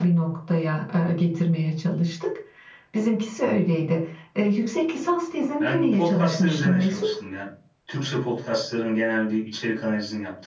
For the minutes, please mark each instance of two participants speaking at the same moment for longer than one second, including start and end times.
5.6-7.1

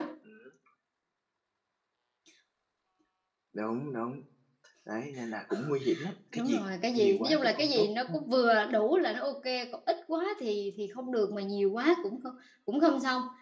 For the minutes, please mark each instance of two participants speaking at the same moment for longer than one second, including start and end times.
7.0-8.2

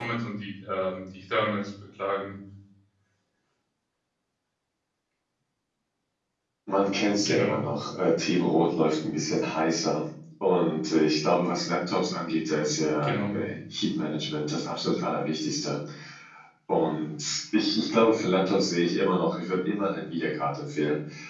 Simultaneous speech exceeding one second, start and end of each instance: none

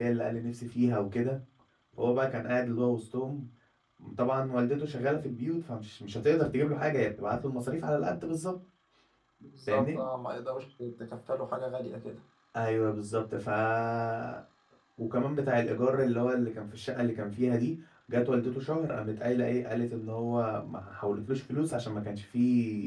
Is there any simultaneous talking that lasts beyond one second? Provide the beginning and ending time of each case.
none

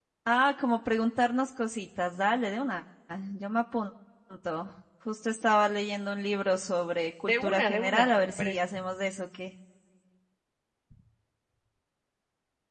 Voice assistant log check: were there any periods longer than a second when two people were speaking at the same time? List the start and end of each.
7.2-8.7

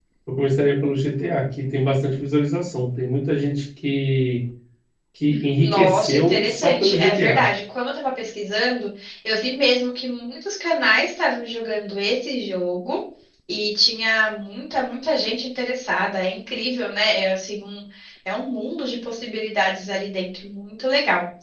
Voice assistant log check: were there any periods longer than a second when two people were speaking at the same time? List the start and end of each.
5.6-7.4

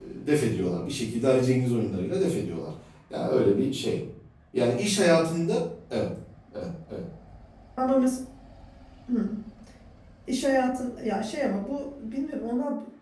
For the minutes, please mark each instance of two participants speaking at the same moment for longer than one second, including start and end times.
none

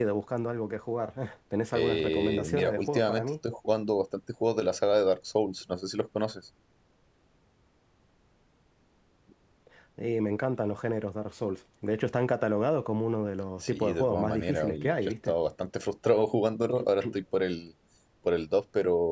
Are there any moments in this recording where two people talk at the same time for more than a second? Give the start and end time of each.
1.7-3.3, 13.7-15.3

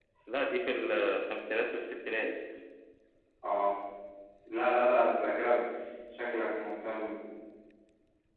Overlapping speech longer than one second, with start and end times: none

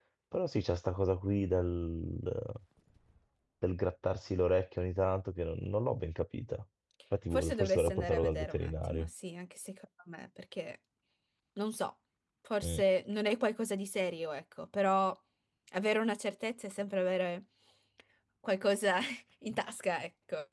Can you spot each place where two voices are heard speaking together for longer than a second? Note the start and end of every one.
7.3-9.1

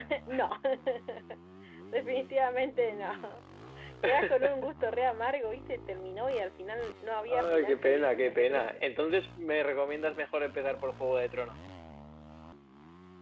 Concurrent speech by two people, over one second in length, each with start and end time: 7.2-8.6

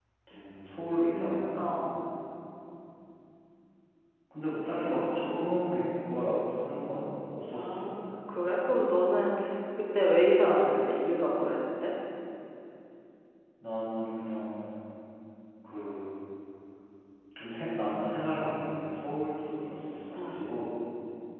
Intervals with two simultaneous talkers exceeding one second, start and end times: none

